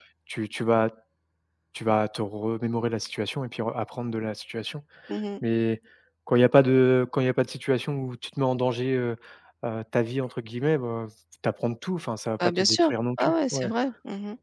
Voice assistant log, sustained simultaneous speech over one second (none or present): present